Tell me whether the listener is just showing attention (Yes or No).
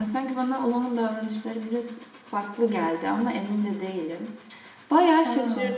Yes